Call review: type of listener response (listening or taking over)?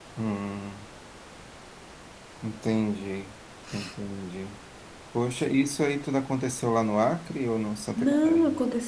taking over